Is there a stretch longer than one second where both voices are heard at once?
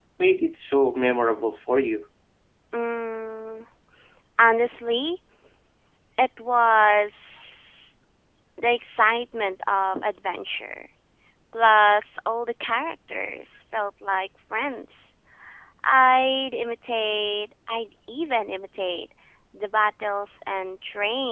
No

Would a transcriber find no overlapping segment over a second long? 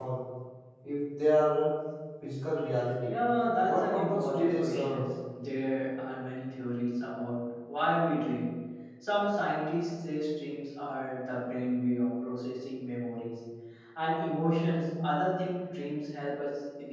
No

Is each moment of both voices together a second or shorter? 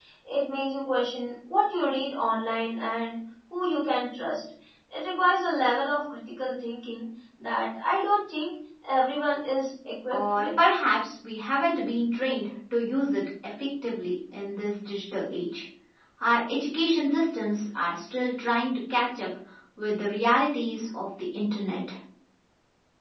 Yes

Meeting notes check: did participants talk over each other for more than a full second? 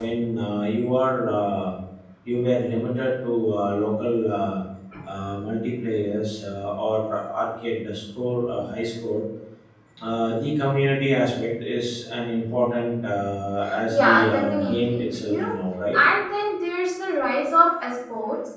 Yes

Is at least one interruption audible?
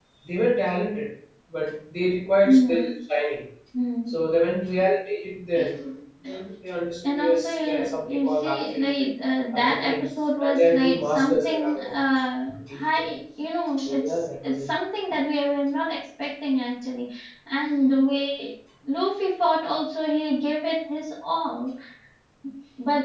Yes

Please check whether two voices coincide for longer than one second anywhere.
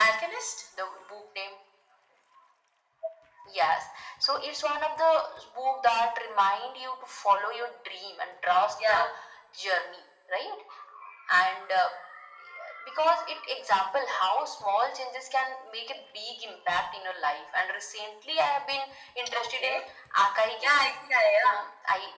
No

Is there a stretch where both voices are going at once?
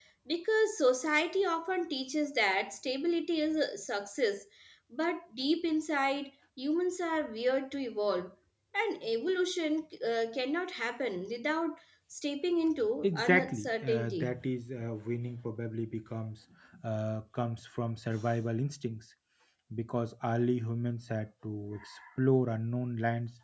Yes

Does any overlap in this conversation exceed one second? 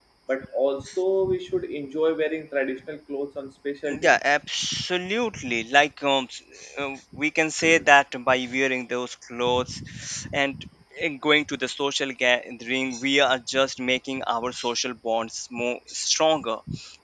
No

